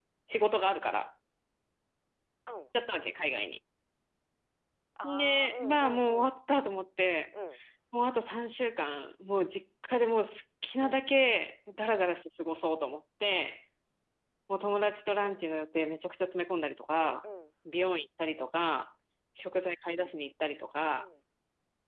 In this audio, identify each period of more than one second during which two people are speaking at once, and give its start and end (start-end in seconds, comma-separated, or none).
5.0-6.3